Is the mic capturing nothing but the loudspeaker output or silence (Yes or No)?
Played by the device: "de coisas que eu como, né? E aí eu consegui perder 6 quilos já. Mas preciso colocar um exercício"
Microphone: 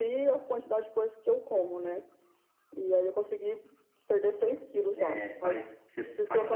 No